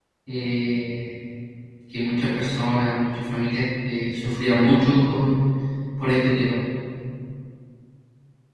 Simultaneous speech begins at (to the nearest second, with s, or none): none